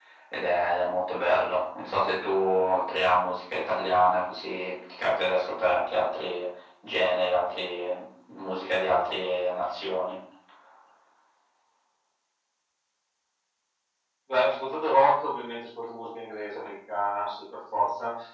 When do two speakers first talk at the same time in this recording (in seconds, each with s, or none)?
none